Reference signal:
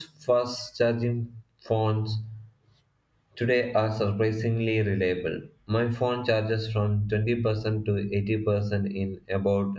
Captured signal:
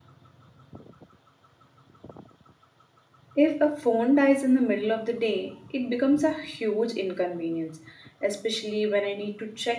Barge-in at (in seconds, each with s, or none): 3.4 s